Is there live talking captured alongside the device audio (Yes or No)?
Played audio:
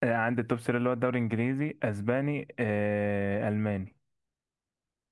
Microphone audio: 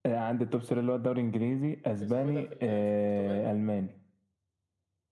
Yes